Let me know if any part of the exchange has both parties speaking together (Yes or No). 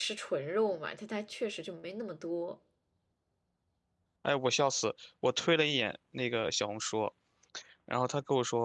No